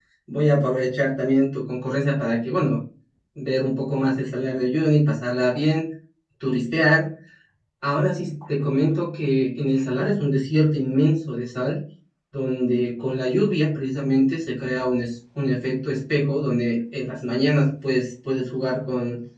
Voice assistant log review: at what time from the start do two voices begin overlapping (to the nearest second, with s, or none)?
none